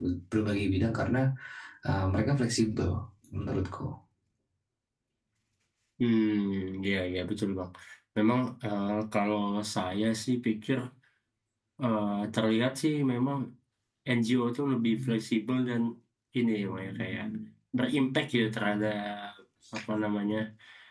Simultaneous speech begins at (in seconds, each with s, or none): none